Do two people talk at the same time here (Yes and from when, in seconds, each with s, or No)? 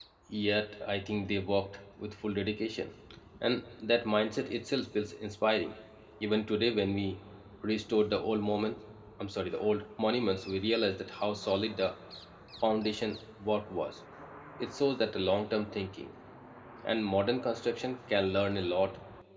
No